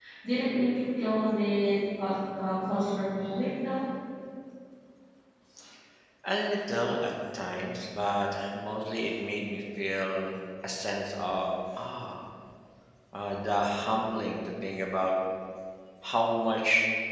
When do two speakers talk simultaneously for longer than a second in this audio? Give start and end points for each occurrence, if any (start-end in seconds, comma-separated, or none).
none